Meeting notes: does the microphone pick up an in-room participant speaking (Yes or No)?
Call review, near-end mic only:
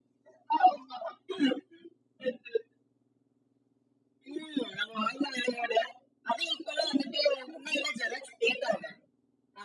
No